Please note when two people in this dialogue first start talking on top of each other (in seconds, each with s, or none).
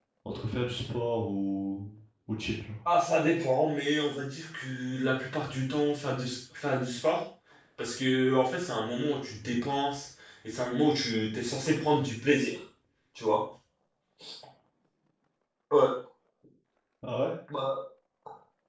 none